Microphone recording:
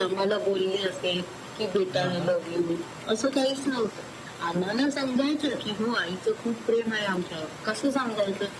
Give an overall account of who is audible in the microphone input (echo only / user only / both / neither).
both